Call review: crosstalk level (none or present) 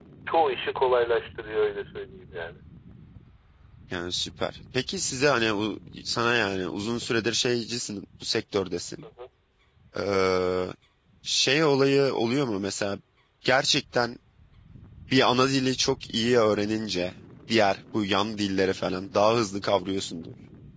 none